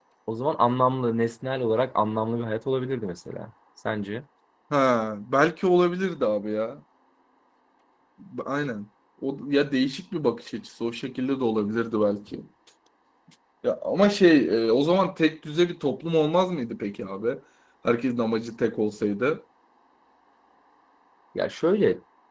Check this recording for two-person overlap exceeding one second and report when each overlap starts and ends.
none

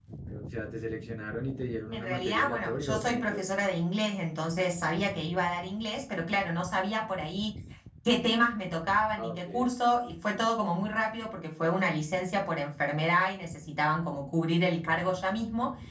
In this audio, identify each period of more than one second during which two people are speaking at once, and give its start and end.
1.9-3.4

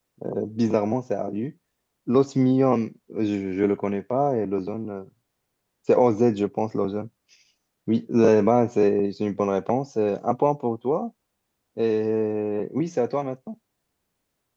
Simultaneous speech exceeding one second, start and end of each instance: none

